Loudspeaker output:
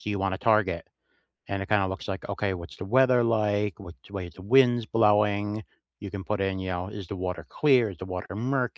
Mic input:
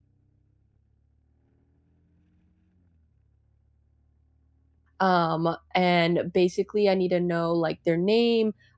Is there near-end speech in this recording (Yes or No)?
Yes